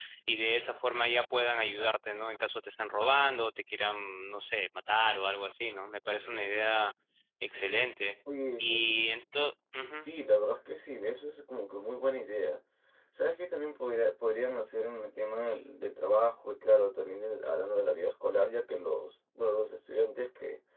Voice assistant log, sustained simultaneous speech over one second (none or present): none